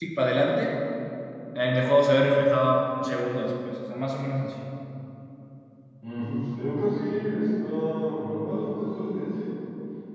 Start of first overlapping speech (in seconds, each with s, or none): none